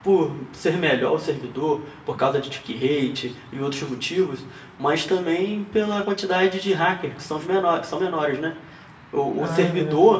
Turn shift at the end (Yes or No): No